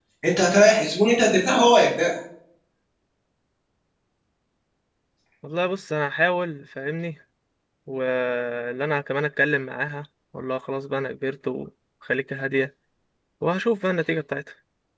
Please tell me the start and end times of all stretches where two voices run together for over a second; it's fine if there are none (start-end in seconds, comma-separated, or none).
none